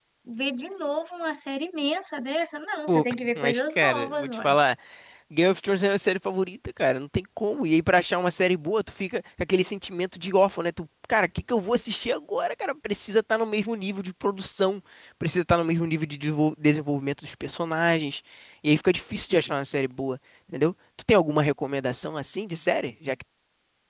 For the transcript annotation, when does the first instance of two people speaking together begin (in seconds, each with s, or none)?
2.9 s